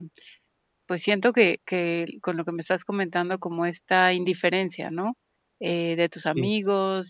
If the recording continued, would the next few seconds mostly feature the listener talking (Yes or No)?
No